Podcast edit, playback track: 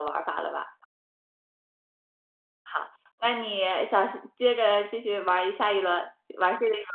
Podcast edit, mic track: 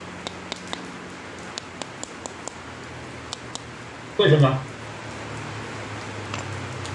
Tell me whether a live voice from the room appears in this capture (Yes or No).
Yes